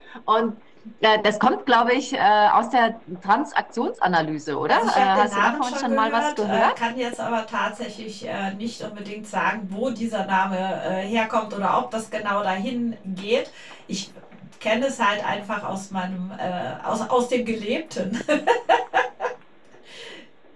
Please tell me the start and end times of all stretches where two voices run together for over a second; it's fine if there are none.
4.7-6.7

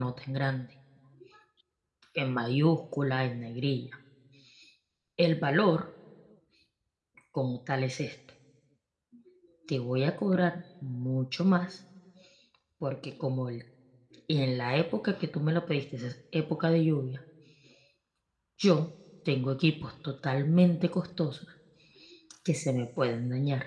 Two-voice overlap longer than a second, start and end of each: none

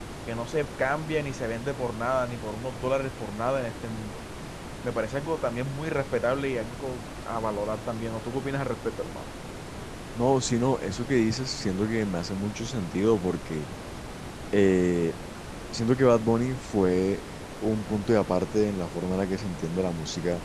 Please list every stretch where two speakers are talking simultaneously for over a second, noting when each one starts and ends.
none

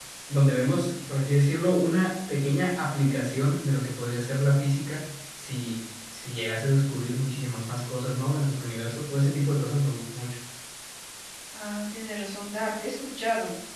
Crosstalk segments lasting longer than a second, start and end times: none

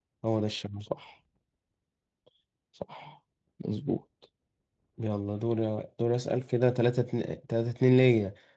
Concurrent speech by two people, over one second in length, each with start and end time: none

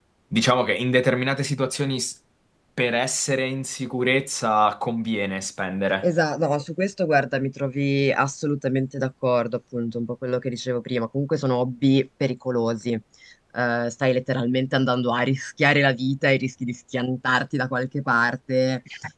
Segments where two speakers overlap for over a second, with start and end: none

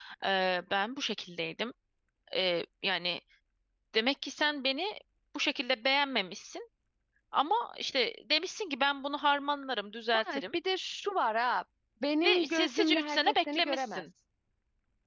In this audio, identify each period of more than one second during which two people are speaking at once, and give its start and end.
12.2-14.0

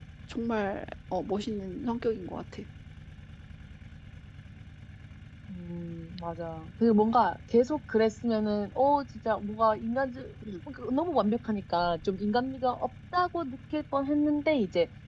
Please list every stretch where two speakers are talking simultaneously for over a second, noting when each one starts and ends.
none

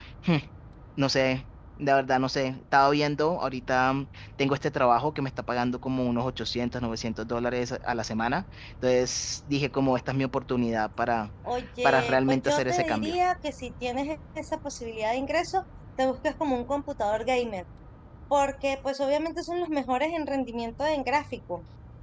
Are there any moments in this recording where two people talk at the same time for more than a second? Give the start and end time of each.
11.8-13.2

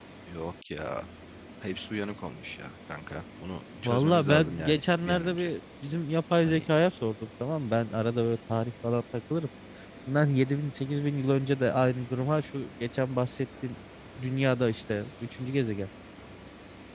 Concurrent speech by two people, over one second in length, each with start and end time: 3.8-5.5

